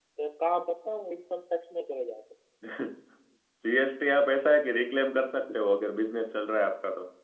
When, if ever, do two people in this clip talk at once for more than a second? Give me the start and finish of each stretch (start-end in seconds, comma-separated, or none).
none